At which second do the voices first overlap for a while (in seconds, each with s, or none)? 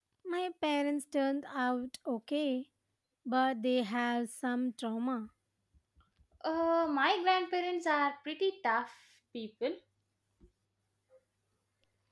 none